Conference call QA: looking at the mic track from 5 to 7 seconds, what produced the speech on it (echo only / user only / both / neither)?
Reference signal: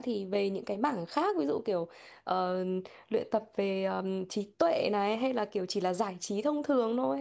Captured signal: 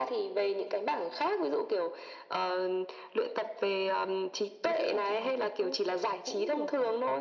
both